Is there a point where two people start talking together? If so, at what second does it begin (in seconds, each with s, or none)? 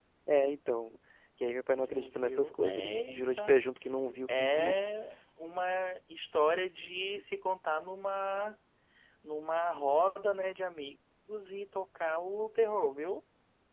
1.8 s